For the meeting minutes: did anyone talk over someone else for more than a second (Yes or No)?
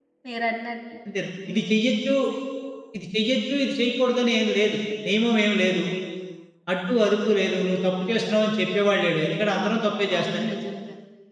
No